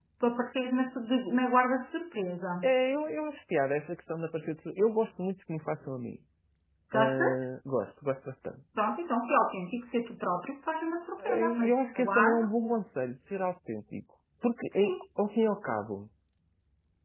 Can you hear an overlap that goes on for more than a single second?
Yes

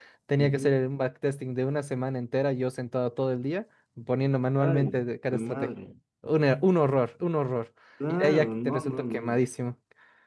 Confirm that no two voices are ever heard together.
No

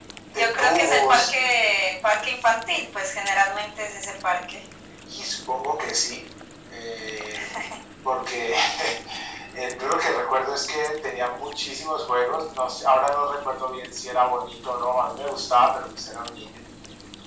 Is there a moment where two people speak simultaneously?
Yes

